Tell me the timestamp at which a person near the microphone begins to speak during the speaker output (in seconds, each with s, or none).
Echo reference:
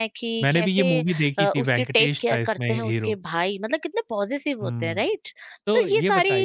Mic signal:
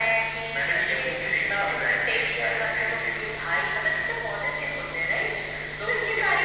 none